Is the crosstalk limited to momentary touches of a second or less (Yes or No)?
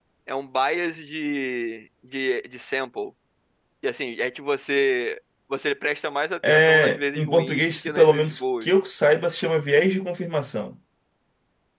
No